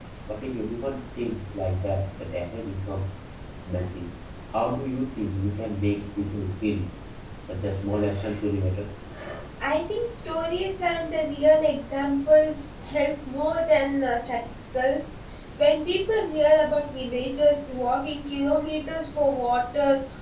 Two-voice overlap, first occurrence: none

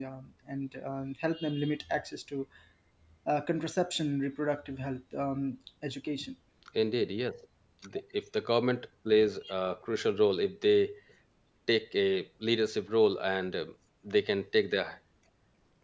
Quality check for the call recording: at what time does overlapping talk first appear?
none

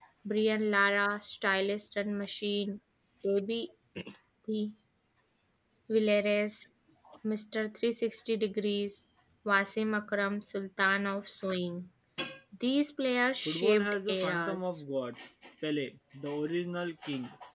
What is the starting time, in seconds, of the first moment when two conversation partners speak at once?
13.4 s

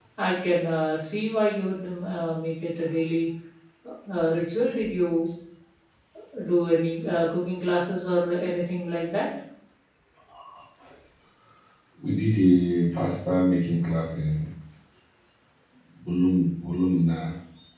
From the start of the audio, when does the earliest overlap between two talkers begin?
none

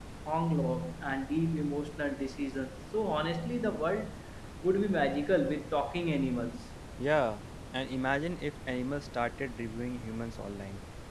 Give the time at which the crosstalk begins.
none

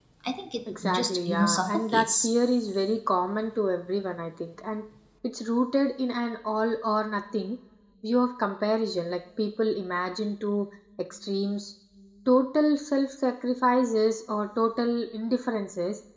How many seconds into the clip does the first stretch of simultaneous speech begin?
0.7 s

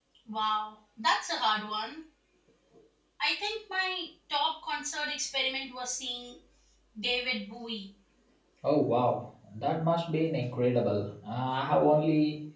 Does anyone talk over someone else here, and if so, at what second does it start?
none

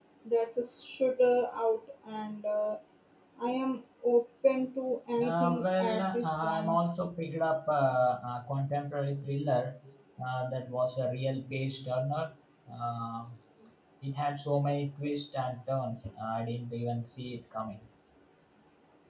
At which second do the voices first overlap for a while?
5.2 s

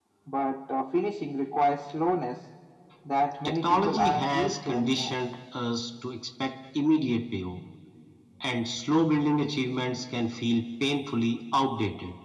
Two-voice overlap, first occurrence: 3.4 s

